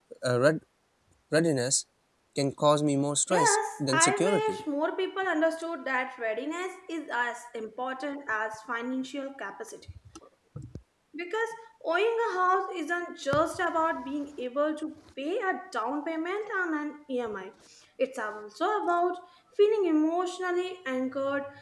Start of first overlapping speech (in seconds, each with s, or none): 3.3 s